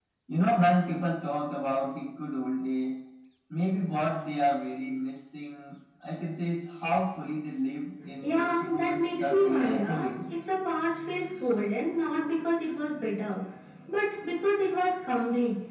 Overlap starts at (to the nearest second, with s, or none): 8 s